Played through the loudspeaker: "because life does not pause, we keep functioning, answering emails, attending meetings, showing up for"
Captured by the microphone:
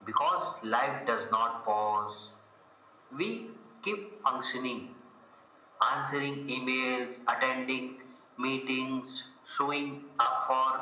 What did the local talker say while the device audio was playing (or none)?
none